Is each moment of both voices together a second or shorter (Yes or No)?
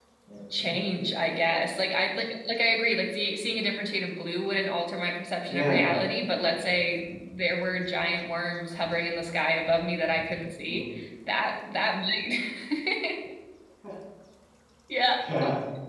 Yes